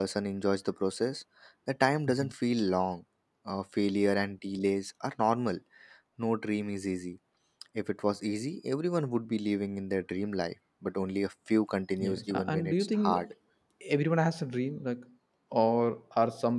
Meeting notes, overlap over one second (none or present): present